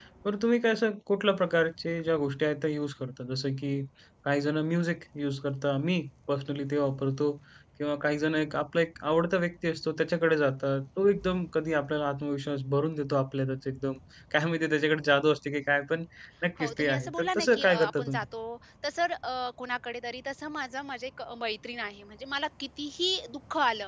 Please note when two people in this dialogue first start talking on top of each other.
16.6 s

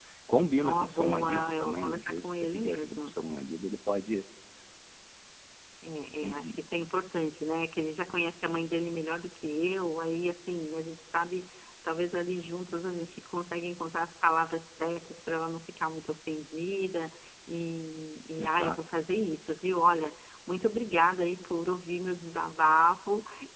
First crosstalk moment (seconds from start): 0.6 s

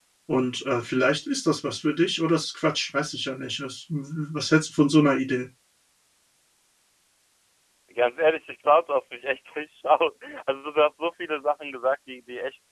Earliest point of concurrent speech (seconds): none

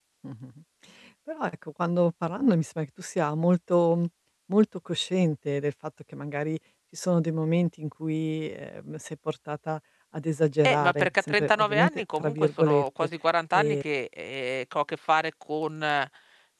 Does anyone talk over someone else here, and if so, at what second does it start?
10.7 s

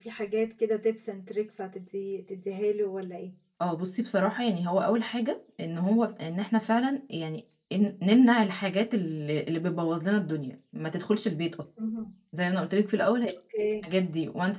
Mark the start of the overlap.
none

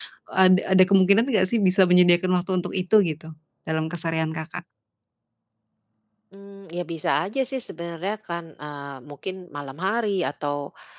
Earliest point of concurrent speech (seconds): none

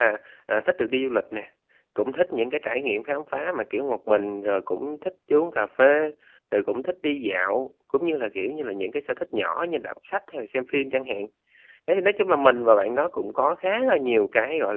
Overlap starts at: none

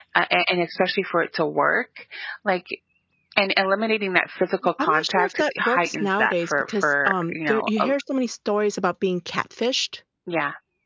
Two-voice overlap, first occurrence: 4.8 s

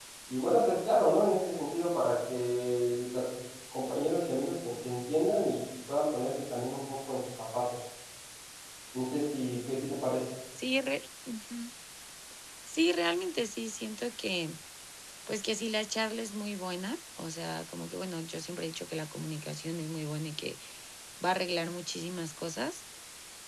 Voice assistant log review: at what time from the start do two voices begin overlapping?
none

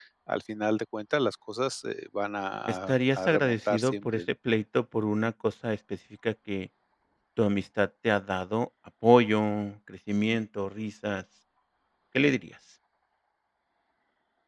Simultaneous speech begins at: 2.7 s

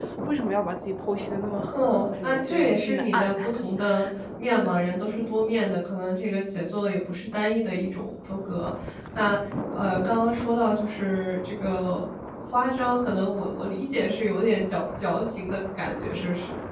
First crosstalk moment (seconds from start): 1.7 s

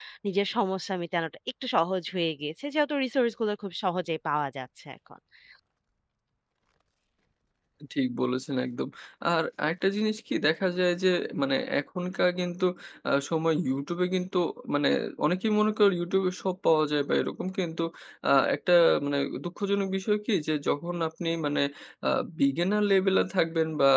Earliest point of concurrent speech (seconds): none

